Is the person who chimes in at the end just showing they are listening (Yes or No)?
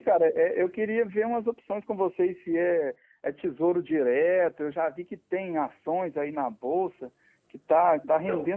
Yes